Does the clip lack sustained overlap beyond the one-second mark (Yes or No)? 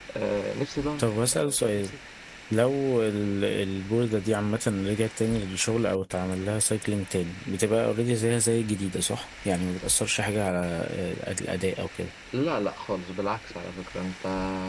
Yes